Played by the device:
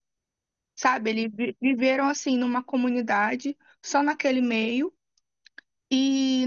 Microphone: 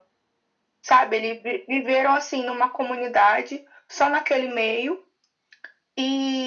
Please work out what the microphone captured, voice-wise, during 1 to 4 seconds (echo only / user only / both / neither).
echo only